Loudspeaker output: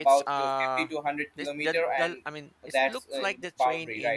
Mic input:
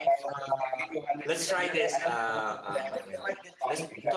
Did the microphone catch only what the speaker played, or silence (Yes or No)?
No